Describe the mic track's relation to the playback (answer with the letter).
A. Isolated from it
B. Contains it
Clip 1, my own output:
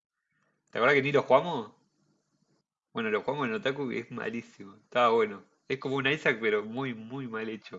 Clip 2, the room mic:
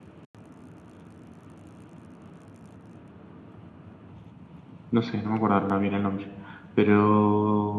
A